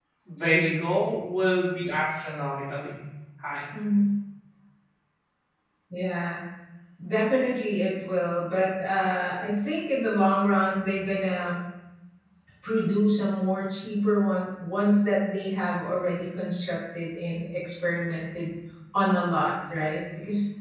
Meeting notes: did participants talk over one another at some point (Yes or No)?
No